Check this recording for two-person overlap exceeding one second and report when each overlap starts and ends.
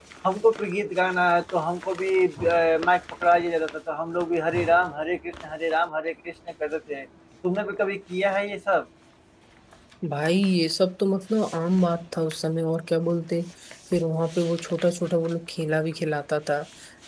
none

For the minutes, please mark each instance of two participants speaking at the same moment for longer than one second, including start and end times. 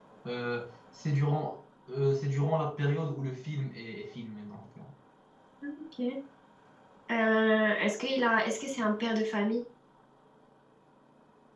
none

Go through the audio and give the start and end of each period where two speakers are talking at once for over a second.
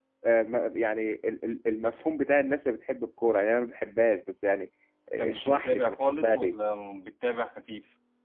5.2-6.5

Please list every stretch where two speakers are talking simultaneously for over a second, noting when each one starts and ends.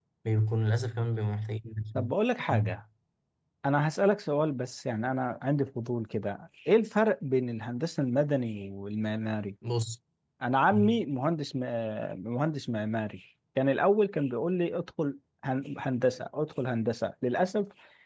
none

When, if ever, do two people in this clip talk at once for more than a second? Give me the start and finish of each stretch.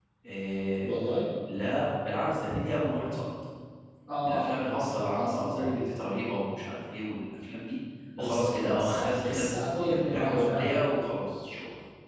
4.2-5.8, 8.2-10.8

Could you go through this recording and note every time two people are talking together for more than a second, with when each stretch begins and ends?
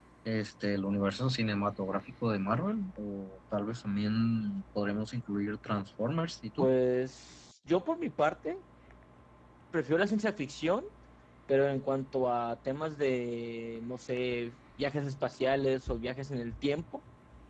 none

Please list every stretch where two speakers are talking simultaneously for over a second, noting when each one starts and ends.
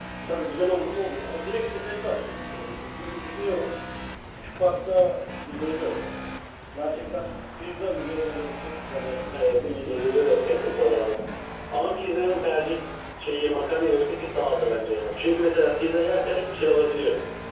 9.3-11.0

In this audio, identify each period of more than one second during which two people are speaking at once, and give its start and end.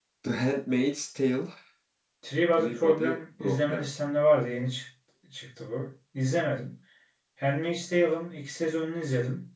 2.6-3.9

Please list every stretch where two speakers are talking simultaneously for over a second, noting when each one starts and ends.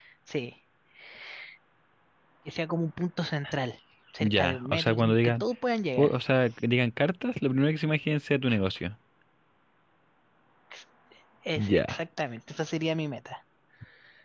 4.2-5.4

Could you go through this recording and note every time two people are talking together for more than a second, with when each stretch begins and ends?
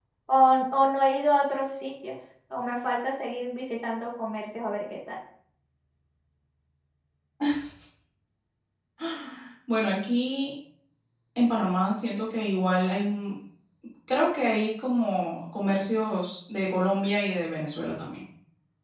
none

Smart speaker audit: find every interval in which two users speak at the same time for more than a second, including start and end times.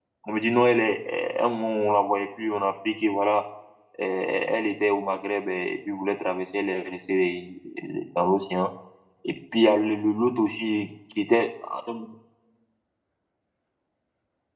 none

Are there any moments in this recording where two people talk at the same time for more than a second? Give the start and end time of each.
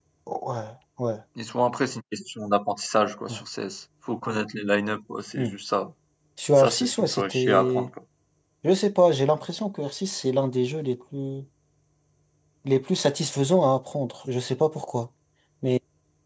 6.6-7.9

